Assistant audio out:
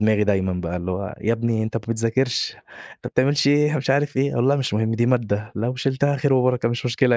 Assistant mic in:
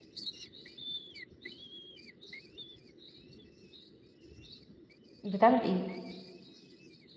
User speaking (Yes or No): Yes